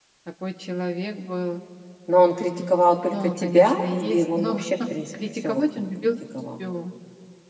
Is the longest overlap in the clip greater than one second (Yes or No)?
Yes